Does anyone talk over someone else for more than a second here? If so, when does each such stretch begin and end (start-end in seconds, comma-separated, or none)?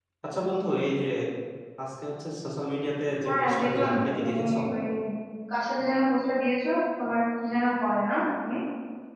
3.2-4.6